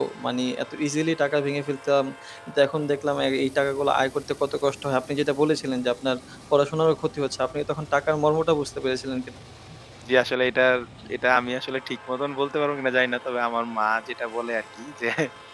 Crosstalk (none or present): none